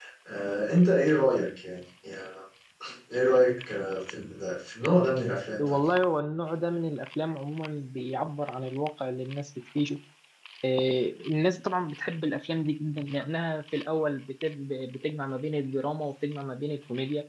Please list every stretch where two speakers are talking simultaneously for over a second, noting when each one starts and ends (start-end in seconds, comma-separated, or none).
none